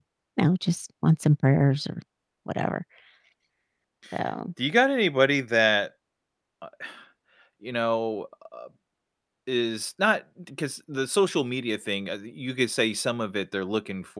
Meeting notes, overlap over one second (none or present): none